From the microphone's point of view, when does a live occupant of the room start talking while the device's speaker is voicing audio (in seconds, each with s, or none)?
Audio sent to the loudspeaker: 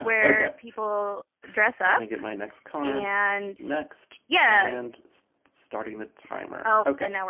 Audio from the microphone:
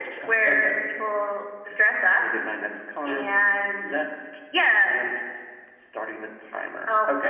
none